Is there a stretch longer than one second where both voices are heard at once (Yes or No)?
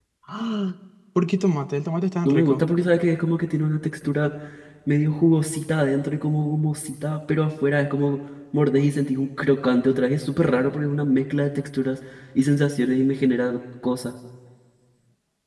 No